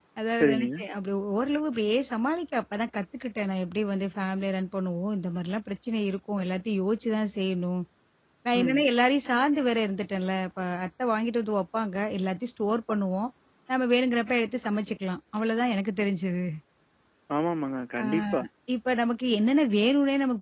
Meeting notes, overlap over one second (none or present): none